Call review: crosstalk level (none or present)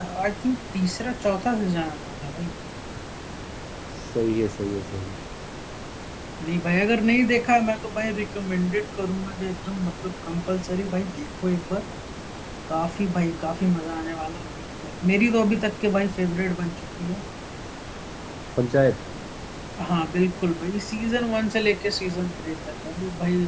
none